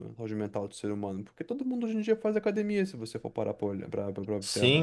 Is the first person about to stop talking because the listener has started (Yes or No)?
Yes